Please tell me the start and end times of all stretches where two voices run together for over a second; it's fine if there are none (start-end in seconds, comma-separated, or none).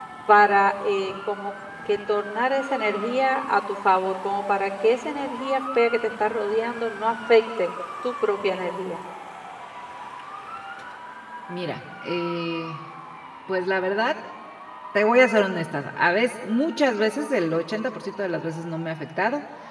none